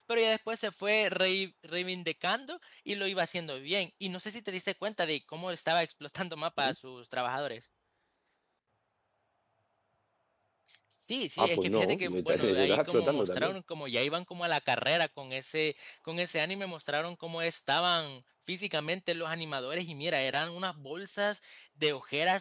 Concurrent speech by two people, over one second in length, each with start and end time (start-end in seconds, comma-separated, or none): 11.4-13.5